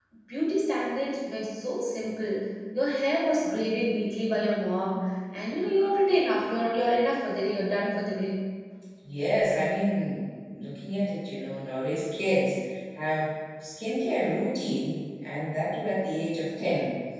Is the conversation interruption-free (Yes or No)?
Yes